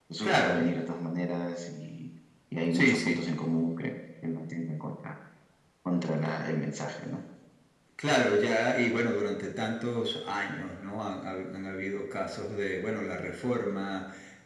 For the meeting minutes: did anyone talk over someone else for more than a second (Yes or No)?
No